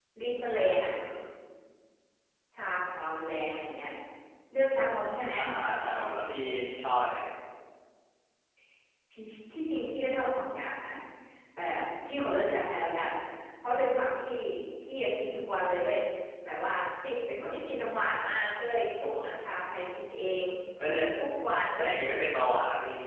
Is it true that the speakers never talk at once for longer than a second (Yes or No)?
Yes